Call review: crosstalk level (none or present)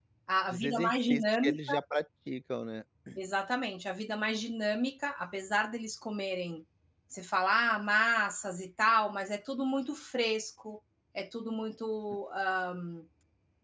present